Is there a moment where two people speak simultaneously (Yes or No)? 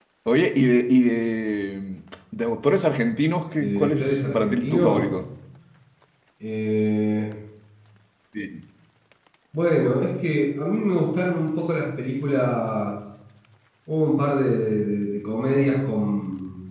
Yes